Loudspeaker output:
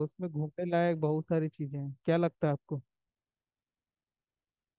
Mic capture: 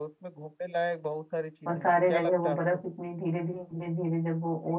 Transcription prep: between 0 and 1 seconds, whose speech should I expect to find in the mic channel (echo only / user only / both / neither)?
echo only